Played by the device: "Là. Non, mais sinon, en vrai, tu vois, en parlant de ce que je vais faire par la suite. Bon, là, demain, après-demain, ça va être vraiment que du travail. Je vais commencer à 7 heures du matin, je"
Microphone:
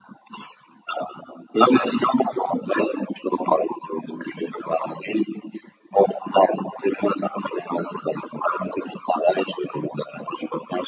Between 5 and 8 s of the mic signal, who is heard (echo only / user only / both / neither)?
echo only